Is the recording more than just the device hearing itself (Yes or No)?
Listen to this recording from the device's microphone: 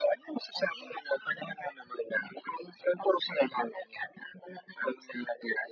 No